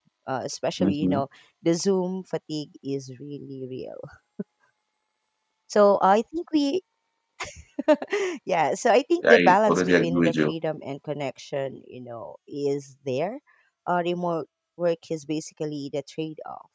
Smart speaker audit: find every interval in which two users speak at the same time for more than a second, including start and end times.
9.2-10.5

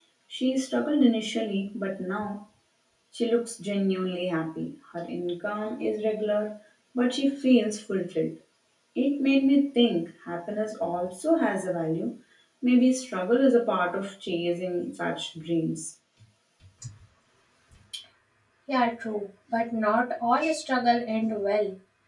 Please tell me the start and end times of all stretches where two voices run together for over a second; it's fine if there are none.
none

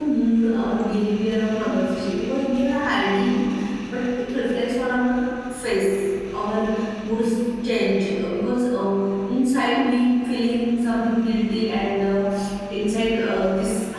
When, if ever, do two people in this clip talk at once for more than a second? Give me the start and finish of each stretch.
none

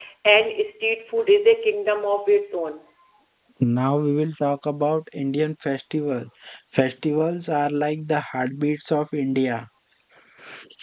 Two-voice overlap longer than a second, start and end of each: none

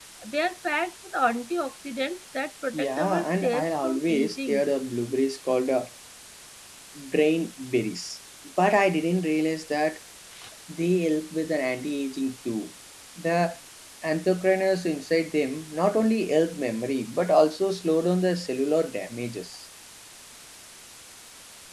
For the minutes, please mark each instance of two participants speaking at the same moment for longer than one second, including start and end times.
2.7-4.7

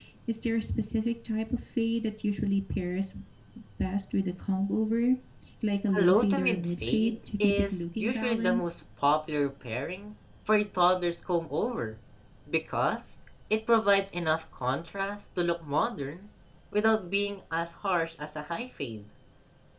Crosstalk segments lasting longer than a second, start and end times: 6.0-8.7

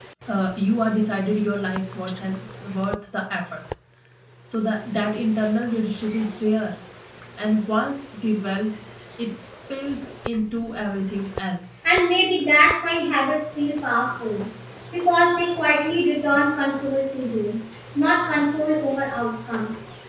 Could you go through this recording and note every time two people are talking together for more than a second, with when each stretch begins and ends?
none

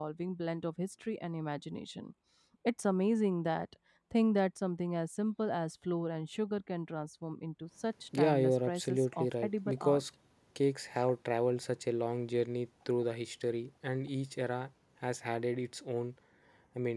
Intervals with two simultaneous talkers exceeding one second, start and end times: 8.2-10.0

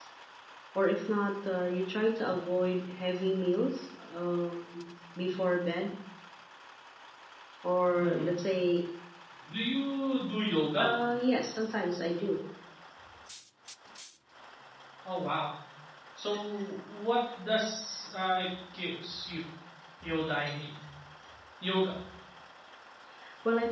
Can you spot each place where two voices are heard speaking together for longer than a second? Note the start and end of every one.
none

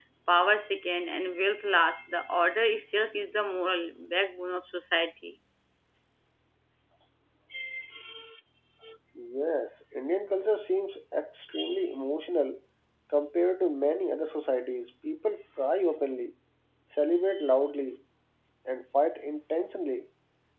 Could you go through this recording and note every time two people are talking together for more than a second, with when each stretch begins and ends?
none

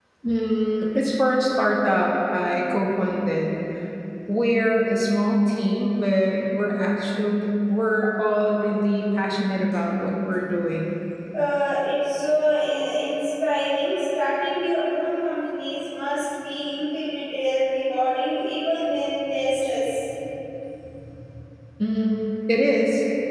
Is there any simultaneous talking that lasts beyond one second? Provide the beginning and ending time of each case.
none

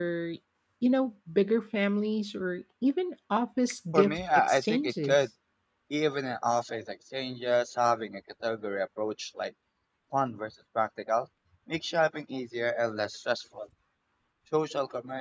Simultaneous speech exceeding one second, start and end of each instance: 3.9-5.2

